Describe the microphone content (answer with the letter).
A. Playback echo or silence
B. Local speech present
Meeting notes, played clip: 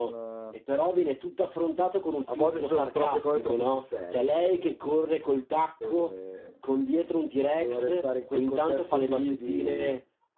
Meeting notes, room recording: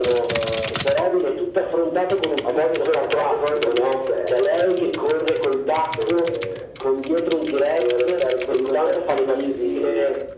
A